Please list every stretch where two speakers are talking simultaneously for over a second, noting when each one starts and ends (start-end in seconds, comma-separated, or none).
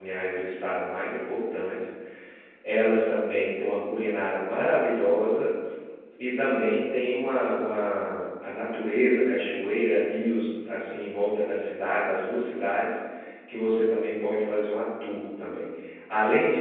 none